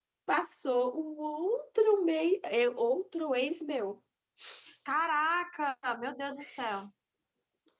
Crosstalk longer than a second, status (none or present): none